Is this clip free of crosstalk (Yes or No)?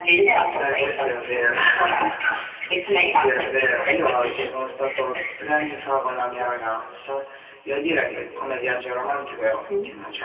No